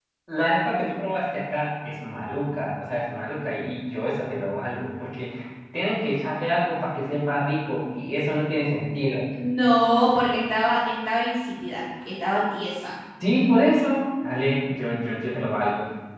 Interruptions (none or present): none